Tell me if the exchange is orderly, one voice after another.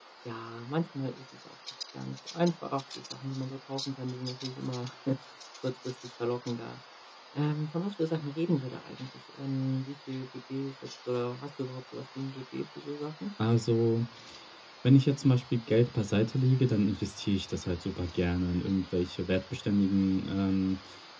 Yes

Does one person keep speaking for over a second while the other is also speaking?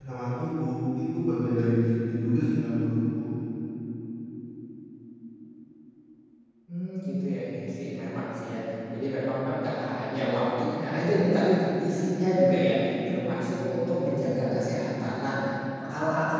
No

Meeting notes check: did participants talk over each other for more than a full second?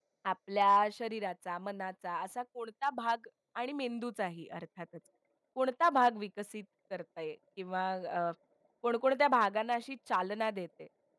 No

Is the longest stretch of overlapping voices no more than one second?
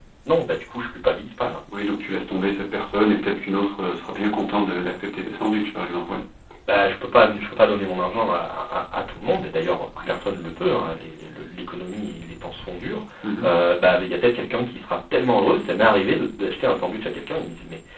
Yes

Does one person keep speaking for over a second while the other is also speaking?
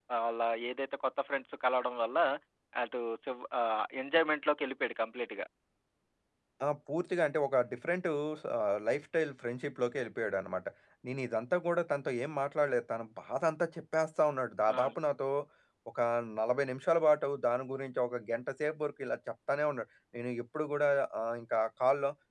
No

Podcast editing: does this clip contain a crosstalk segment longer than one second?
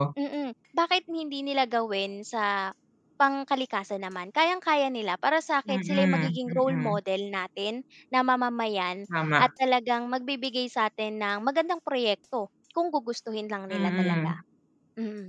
Yes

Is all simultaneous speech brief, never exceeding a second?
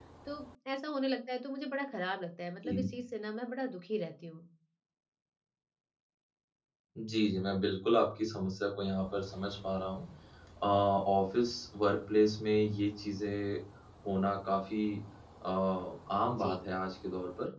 Yes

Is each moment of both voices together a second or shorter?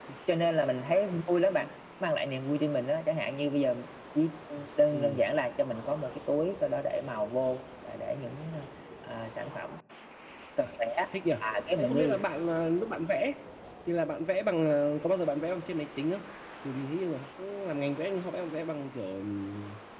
Yes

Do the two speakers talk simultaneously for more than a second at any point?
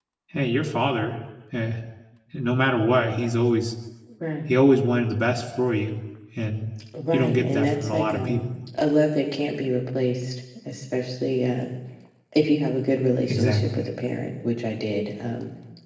Yes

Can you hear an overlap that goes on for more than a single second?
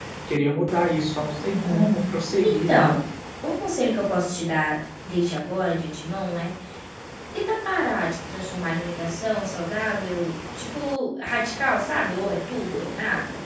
No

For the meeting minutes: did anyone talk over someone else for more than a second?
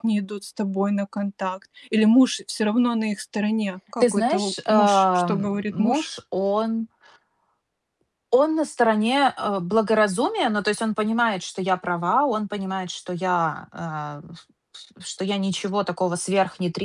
Yes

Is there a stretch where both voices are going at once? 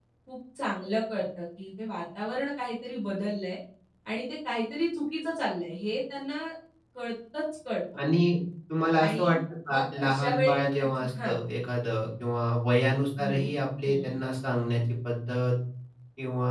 Yes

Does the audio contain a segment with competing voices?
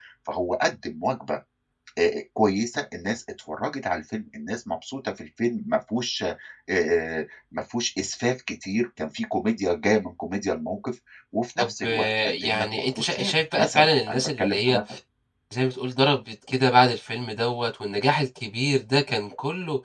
Yes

